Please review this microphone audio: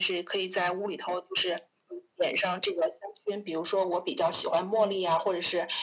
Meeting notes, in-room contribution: present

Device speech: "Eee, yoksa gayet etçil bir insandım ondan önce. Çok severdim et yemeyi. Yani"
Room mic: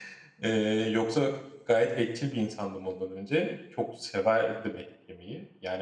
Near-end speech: none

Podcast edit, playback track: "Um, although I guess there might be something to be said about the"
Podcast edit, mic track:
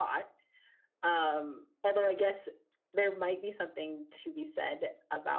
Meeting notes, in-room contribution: none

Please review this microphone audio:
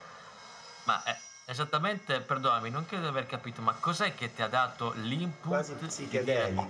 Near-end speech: present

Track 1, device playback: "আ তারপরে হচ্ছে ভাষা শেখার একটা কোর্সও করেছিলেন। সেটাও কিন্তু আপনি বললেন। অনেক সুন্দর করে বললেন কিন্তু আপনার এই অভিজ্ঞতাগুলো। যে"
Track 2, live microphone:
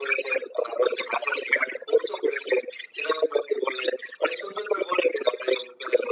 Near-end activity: none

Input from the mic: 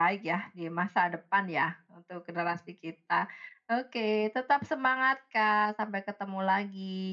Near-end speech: none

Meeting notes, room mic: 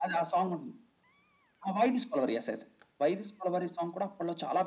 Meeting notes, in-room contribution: none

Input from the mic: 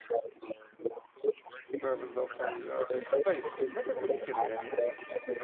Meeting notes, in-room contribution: present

